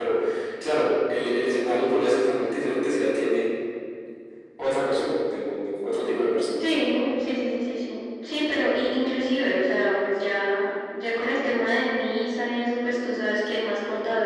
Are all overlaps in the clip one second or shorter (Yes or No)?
Yes